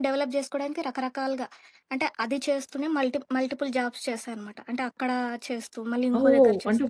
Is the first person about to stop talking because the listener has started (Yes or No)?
Yes